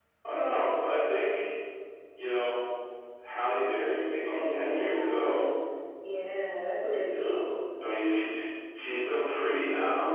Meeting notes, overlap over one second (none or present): present